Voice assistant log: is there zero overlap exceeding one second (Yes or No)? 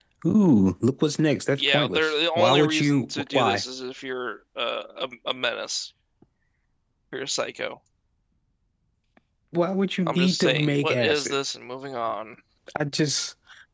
No